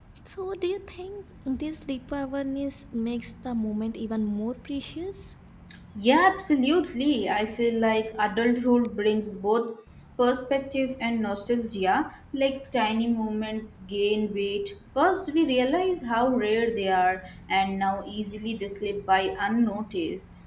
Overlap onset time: none

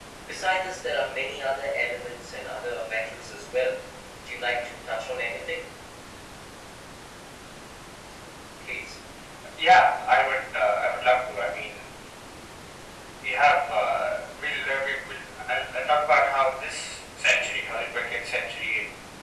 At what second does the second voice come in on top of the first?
none

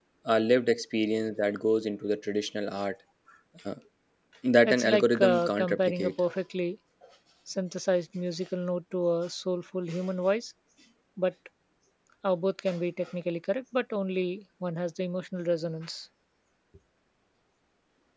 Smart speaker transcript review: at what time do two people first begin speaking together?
4.7 s

